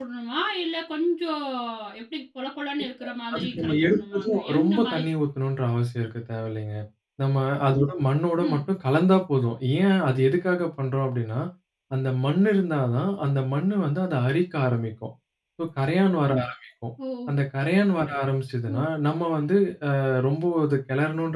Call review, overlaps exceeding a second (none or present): present